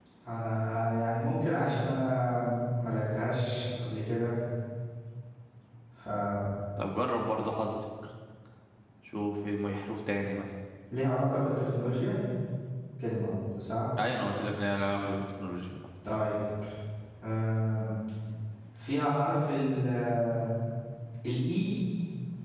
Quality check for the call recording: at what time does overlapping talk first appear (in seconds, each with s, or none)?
none